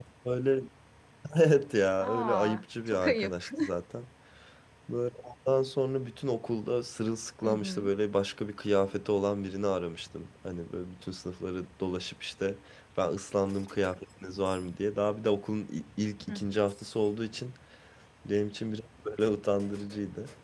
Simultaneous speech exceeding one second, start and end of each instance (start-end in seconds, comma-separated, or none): 2.0-3.5